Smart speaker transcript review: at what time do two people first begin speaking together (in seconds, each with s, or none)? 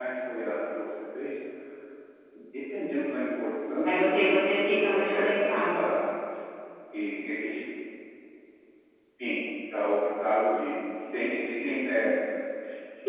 3.8 s